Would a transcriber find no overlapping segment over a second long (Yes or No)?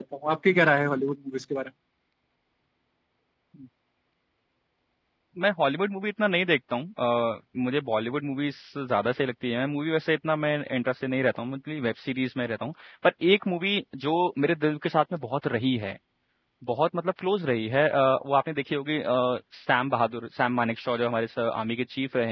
Yes